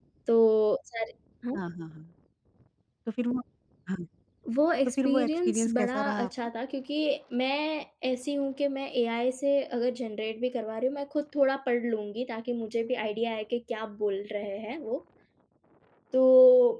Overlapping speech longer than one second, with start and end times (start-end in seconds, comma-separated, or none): 4.9-6.3